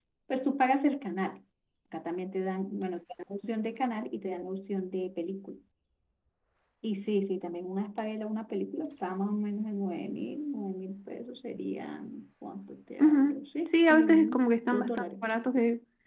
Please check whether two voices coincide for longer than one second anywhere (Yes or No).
Yes